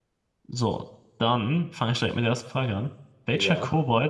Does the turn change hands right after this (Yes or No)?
No